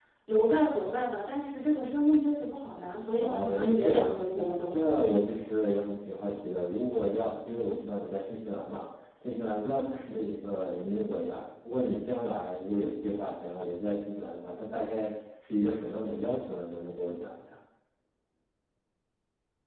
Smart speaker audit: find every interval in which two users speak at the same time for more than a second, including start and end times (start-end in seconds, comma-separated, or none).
3.2-4.9